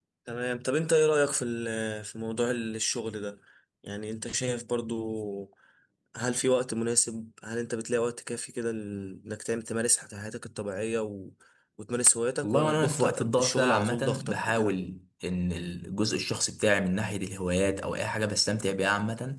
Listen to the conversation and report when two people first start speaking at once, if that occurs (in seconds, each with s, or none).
12.4 s